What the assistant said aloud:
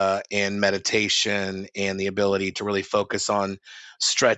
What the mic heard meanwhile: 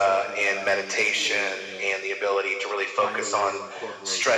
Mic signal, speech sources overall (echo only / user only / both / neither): both